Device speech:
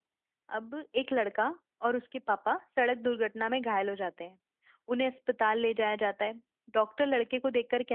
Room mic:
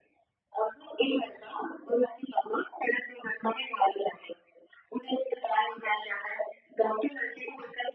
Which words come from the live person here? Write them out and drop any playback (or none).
none